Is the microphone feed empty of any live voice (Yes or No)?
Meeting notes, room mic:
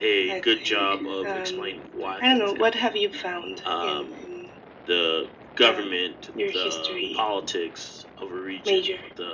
Yes